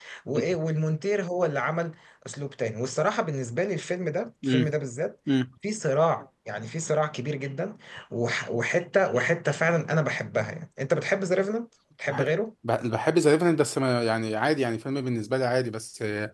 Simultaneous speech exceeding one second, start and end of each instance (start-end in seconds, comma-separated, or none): none